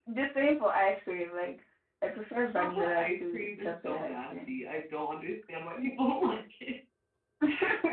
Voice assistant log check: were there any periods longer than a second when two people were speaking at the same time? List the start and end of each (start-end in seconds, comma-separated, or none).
2.5-4.5